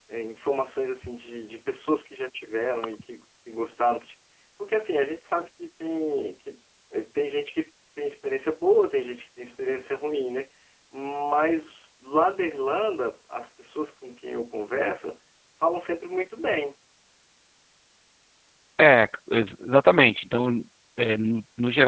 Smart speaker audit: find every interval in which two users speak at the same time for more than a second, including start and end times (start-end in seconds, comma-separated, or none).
none